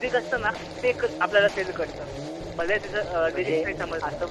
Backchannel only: No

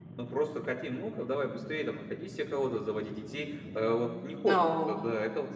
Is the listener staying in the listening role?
Yes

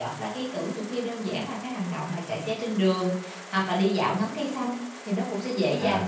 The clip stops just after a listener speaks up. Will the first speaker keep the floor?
Yes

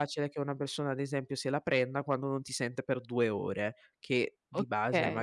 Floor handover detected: No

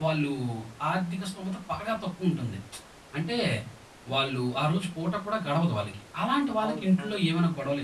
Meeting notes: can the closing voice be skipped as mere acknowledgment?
Yes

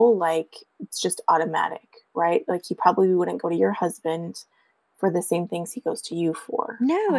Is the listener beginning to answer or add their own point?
Yes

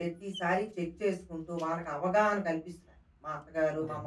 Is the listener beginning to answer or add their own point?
No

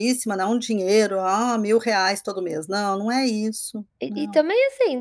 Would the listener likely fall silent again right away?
No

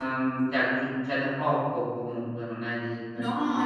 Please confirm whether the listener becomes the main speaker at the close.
Yes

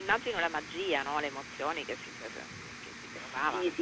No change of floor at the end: No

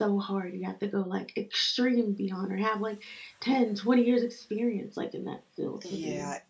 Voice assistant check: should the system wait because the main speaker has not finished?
No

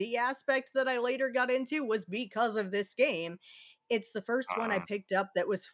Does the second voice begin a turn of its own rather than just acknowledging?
No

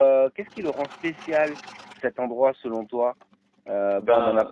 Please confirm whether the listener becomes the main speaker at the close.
No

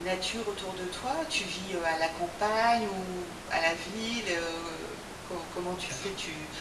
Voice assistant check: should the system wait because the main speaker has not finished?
Yes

